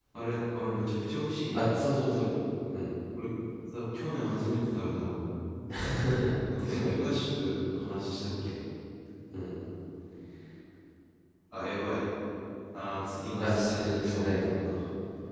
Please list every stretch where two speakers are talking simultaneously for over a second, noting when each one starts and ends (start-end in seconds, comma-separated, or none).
13.4-14.7